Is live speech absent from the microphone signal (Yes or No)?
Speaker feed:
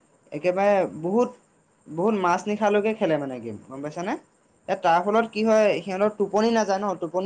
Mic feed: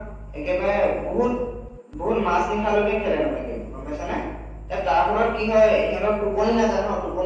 Yes